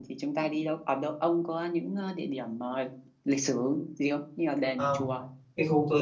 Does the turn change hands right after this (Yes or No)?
Yes